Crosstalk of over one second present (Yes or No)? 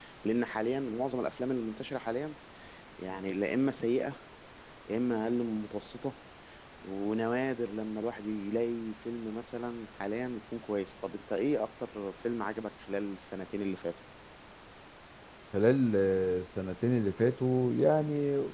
No